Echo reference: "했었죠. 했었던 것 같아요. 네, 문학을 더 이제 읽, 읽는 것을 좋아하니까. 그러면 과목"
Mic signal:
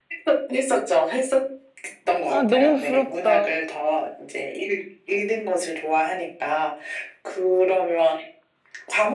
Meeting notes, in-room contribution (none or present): present